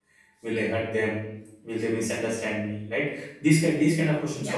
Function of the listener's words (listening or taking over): listening